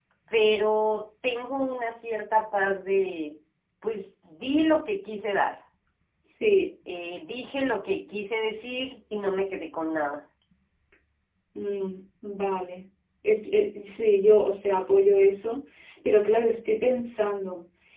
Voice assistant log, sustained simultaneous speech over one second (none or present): none